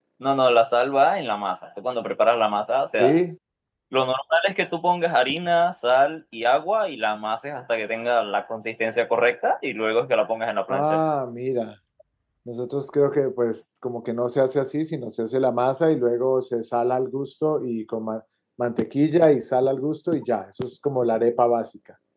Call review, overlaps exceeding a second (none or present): none